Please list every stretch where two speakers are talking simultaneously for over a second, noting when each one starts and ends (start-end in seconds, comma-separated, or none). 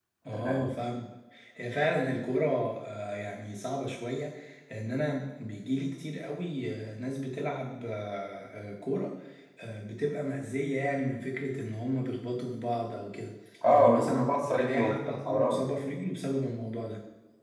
13.7-15.6